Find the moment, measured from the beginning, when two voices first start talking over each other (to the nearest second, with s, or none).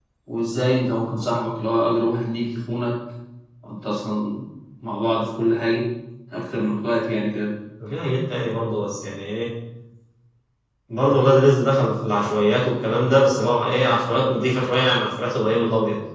none